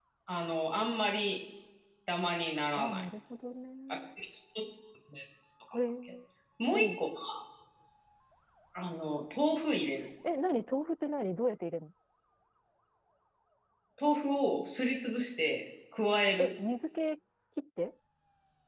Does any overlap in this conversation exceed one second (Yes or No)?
No